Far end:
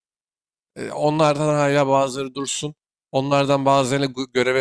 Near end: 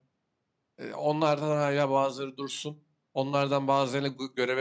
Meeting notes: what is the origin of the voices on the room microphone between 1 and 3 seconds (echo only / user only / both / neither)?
echo only